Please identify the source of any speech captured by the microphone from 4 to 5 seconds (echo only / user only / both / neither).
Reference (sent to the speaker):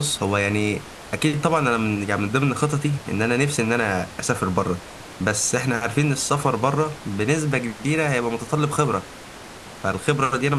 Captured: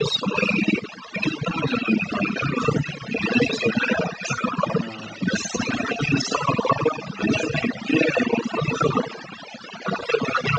both